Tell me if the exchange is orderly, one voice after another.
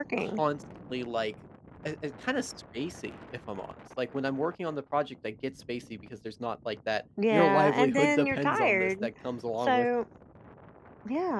No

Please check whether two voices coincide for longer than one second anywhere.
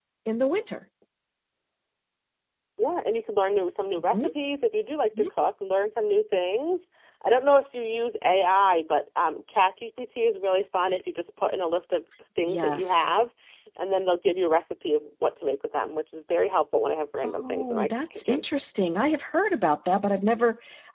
Yes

